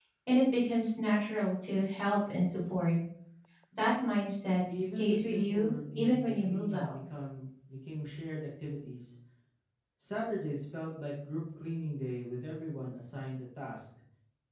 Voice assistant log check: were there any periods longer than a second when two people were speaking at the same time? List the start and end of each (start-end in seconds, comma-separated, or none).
4.8-6.9